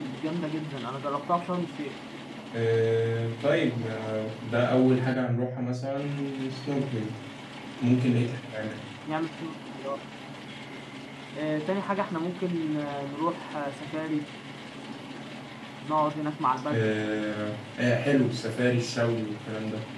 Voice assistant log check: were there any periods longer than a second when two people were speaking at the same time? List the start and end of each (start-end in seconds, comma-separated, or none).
none